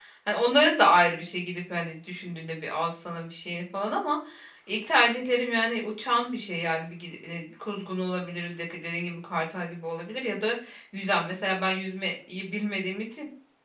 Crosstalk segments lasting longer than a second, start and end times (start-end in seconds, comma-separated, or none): none